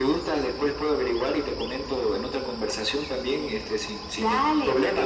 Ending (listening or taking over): taking over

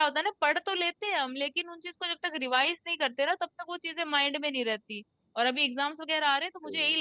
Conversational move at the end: listening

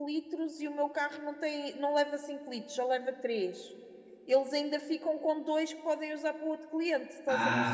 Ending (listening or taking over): taking over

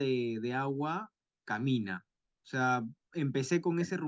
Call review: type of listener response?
listening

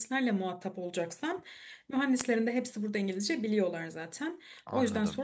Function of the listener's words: listening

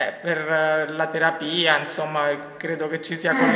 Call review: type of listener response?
listening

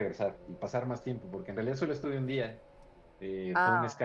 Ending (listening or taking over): listening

